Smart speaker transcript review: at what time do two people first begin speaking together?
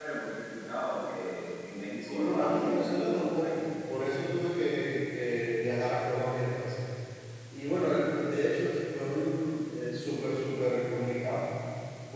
2.0 s

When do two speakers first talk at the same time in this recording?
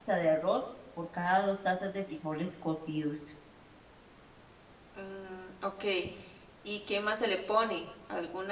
none

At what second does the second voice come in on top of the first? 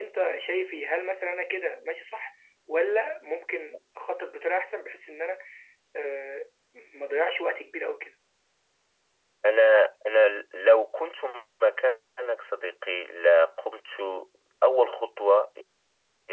none

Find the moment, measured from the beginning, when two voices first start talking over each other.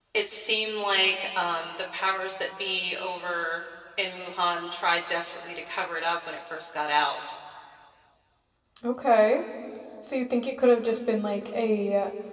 none

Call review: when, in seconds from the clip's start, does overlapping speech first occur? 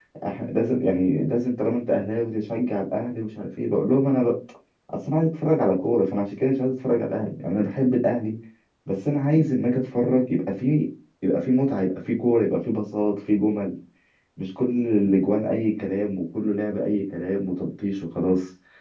none

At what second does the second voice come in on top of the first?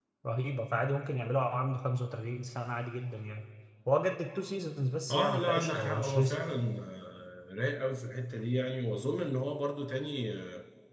5.1 s

